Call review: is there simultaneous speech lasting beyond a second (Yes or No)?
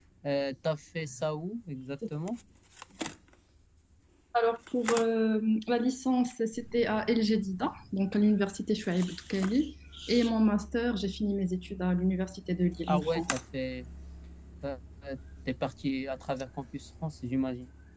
No